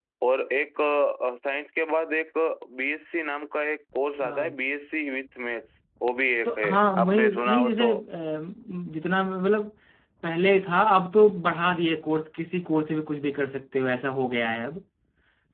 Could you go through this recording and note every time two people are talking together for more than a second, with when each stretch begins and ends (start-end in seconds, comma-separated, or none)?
6.5-7.9